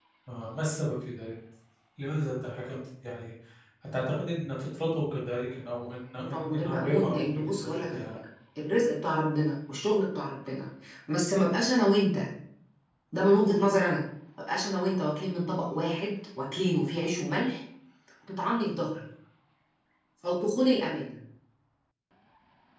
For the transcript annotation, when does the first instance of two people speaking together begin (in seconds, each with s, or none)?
6.2 s